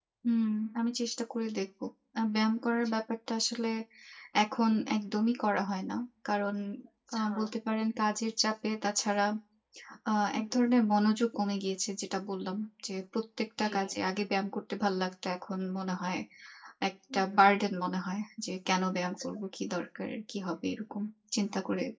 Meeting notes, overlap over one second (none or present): none